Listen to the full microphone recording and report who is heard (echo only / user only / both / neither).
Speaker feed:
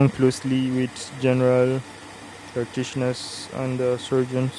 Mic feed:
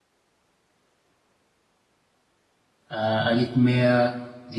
user only